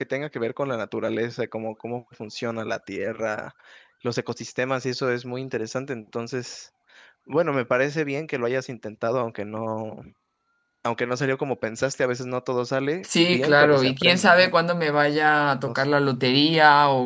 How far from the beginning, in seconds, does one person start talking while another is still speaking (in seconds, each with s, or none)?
13.0 s